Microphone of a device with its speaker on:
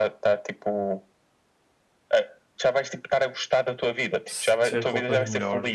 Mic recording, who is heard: both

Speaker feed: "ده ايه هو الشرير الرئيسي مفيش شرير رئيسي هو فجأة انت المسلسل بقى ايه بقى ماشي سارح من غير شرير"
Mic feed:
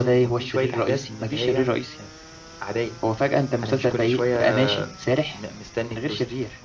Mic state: both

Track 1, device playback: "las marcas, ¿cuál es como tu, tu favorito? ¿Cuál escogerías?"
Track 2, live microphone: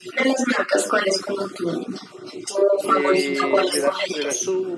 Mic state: both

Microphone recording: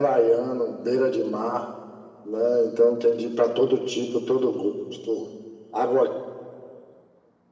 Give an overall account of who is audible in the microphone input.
echo only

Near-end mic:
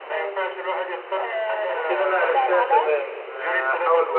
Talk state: both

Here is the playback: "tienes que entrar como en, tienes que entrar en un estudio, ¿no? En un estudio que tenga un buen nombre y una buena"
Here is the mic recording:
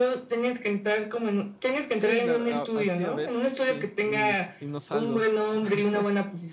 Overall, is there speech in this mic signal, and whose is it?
both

